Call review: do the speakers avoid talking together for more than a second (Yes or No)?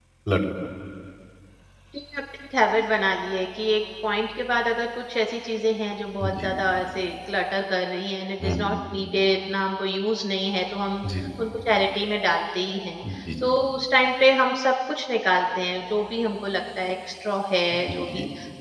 Yes